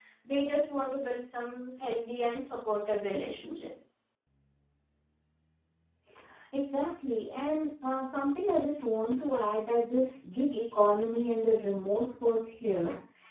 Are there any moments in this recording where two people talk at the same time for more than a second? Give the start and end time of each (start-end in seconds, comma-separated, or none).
none